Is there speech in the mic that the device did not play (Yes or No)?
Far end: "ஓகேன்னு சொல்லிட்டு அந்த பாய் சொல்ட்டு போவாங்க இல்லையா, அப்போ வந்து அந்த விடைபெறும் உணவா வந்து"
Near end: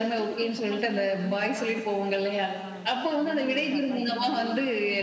Yes